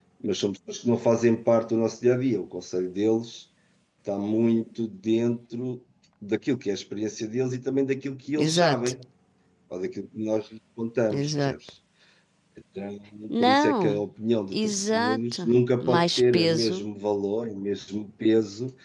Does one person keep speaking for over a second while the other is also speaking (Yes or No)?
Yes